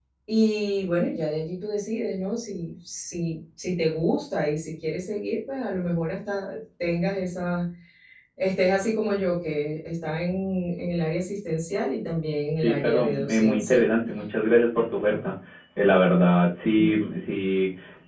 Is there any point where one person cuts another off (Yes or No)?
Yes